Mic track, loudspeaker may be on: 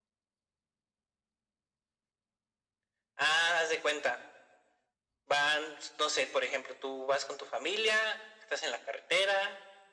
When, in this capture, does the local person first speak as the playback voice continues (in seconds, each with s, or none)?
none